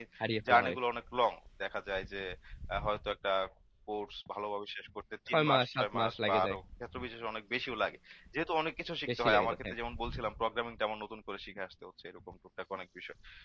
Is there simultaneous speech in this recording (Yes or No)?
Yes